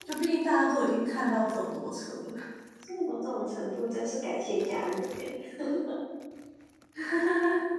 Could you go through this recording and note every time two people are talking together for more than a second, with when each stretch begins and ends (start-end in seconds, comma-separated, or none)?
none